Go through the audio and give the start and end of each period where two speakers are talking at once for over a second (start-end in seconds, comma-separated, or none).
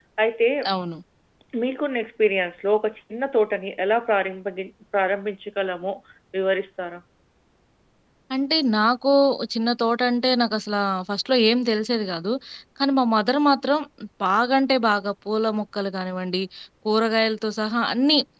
none